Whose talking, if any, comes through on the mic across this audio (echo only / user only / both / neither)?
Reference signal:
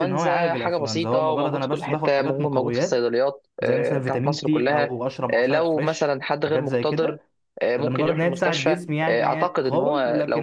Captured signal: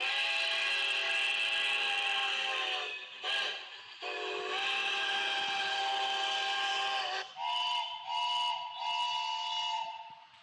neither